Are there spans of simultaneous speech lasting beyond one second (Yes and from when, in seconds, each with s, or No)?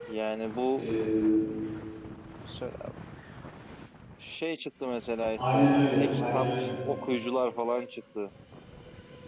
Yes, from 5.4 s